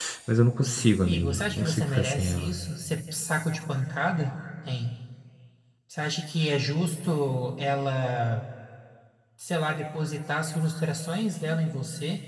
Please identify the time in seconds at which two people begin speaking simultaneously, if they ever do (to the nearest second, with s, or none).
1 s